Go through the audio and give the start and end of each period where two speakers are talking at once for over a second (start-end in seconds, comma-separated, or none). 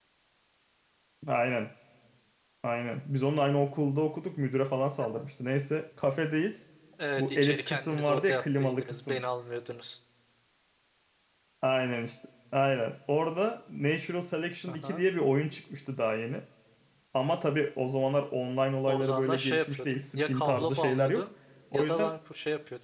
7.2-9.2, 18.9-21.3